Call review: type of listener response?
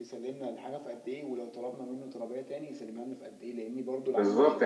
taking over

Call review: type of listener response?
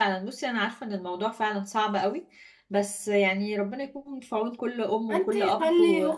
taking over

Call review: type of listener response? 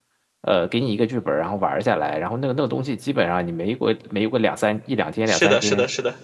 taking over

